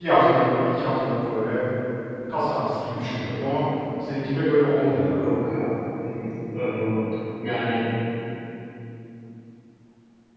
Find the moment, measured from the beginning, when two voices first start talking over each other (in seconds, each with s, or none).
none